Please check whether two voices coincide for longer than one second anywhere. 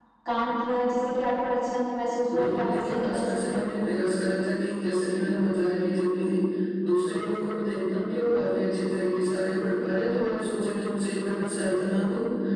Yes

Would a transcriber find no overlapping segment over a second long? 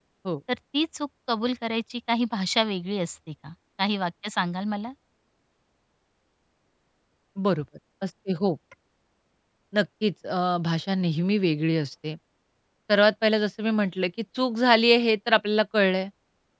Yes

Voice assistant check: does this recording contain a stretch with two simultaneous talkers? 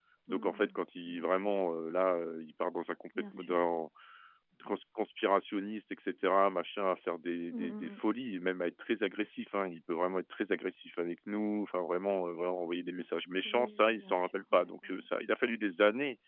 Yes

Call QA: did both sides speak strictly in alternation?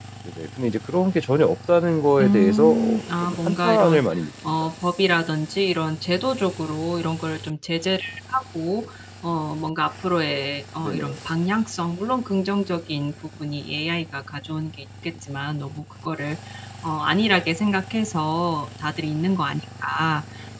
No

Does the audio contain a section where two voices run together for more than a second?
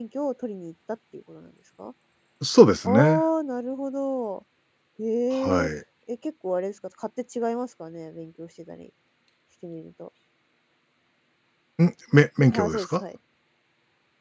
No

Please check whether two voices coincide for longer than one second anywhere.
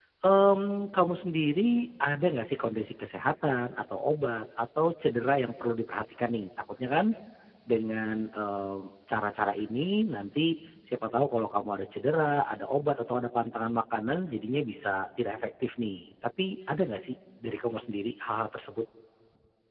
No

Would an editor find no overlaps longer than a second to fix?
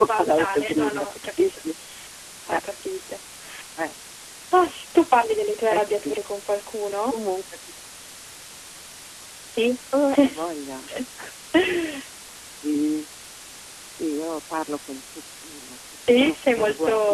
No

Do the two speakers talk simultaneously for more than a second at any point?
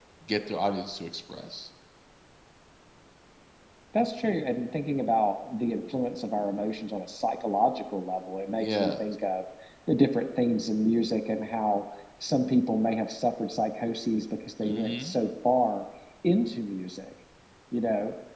No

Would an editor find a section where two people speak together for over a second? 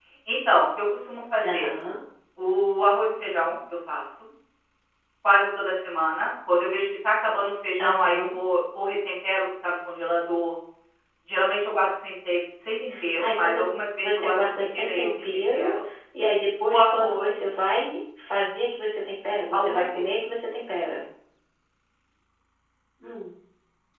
Yes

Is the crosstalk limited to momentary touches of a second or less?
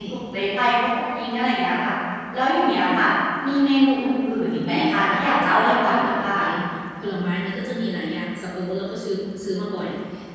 No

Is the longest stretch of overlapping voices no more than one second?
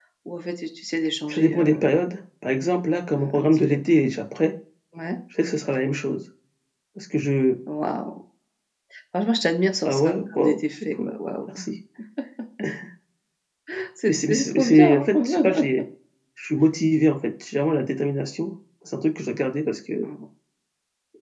No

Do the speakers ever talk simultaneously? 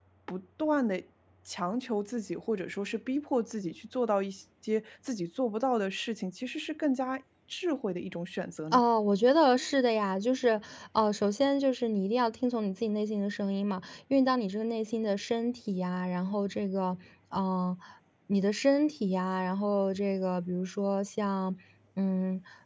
No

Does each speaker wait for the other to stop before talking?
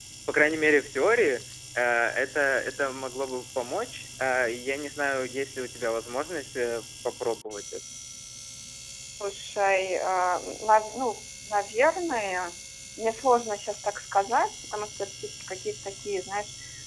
Yes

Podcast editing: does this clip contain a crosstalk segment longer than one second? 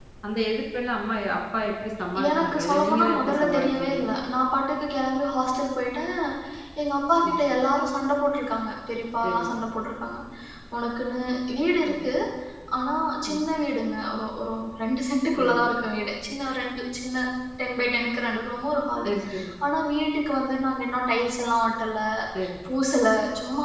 Yes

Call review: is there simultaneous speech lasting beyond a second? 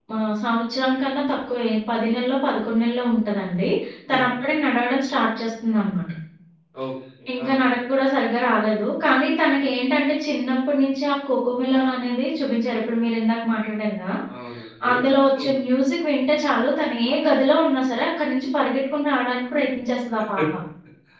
No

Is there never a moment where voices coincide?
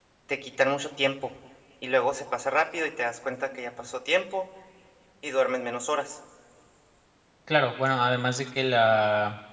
Yes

